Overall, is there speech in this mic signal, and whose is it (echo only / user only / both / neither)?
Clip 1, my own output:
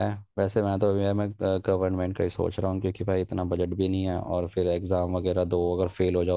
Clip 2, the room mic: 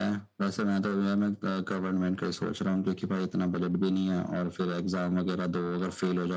echo only